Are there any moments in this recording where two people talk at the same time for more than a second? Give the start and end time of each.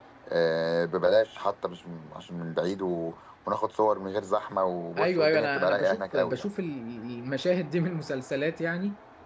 5.0-6.4

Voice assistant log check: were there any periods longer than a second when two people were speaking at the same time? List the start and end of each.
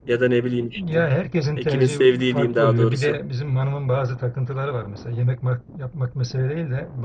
1.6-3.2

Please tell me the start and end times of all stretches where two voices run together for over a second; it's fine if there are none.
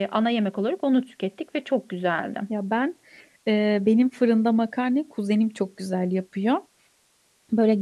none

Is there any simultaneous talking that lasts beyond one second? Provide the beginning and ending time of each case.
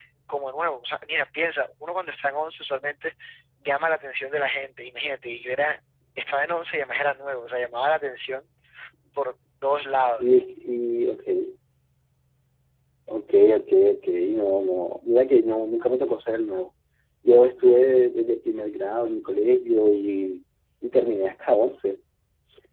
none

